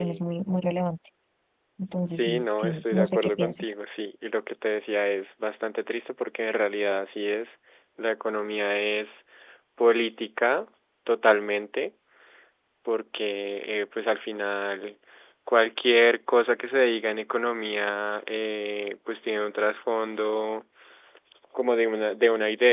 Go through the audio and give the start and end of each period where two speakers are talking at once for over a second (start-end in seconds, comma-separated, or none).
2.1-3.7